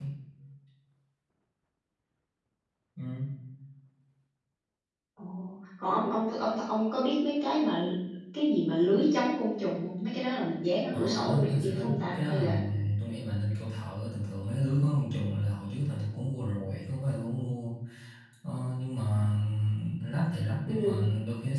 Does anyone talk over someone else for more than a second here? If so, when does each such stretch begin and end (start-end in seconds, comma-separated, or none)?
10.9-12.4